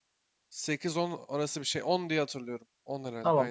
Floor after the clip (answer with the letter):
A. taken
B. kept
A